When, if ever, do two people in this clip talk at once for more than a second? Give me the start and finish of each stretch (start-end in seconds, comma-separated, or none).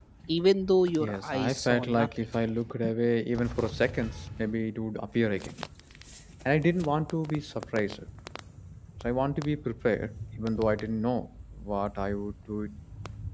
1.0-2.2